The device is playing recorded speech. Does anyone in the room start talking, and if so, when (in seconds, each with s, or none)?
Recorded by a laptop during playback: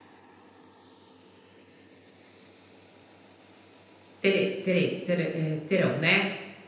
4.3 s